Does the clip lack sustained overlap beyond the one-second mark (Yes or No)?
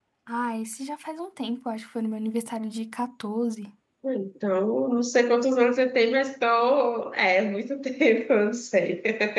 Yes